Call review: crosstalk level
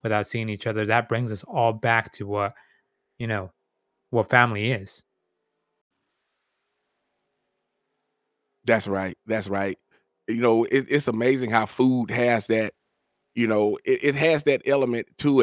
none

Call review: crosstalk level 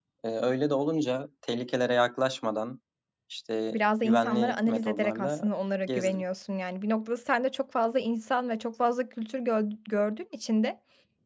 present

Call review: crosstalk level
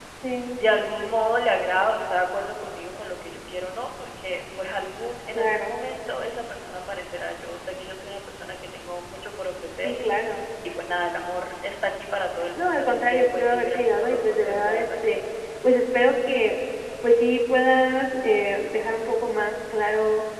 present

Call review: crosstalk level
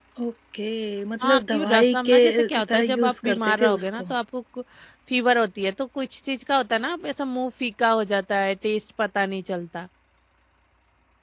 present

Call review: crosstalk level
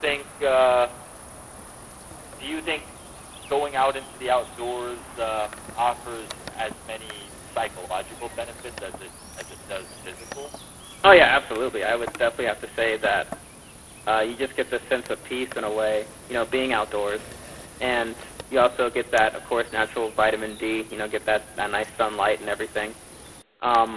none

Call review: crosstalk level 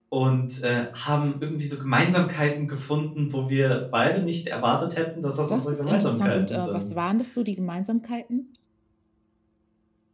present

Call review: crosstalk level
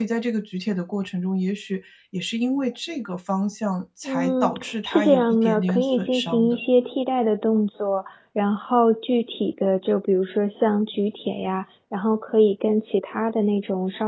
present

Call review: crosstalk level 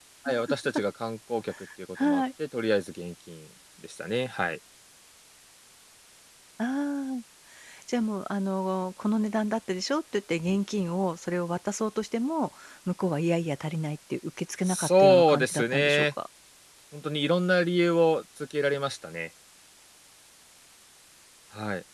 present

